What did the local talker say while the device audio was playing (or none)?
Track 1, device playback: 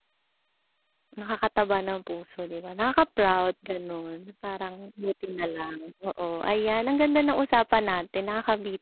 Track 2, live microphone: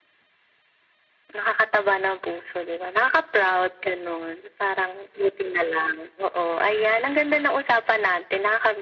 none